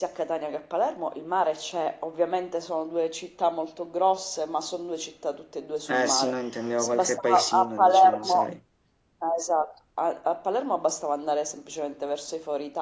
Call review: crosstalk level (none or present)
present